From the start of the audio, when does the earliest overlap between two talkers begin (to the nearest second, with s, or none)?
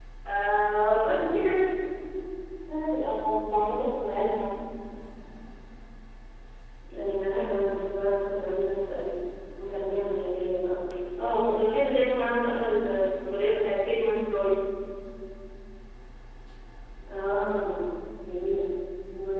none